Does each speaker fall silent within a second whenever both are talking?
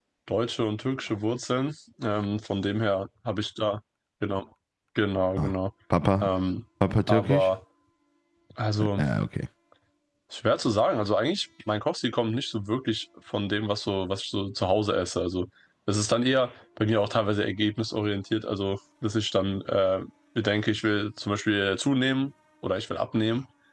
Yes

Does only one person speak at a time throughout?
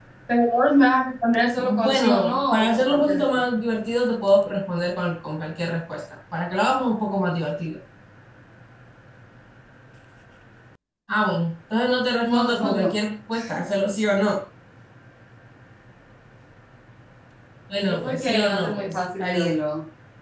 No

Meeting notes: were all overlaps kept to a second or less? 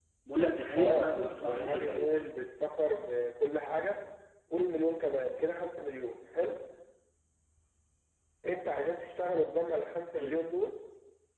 No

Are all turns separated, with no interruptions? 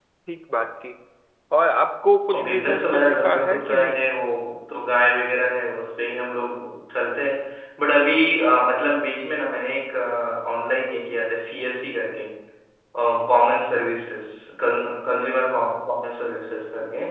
No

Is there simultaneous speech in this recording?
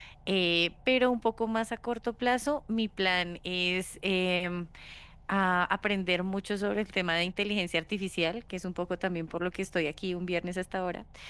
No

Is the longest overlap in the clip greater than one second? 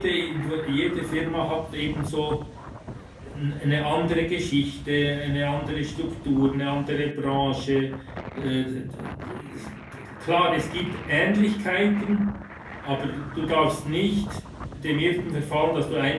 No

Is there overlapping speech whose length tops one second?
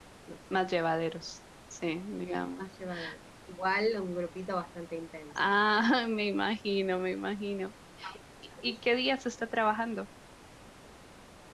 No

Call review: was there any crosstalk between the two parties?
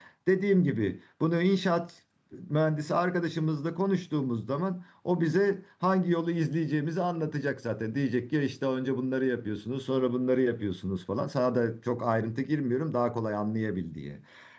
No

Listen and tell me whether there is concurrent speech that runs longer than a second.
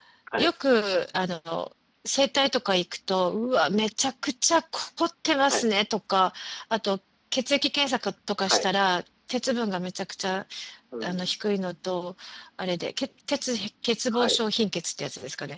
No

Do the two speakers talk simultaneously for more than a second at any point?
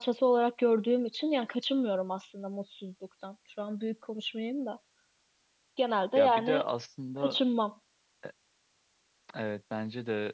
No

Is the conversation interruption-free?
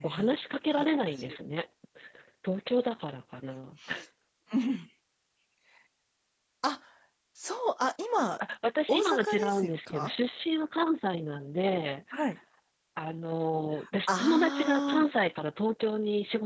No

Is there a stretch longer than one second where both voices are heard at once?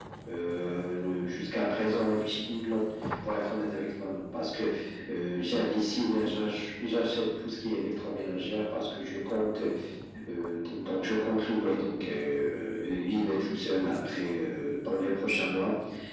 No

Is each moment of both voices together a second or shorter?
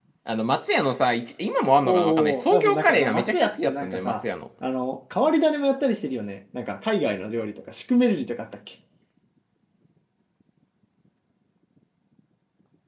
No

